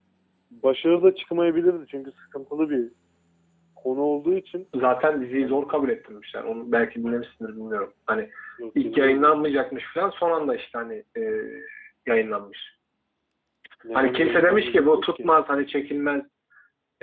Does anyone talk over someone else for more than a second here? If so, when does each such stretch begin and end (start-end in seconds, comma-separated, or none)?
14.0-15.3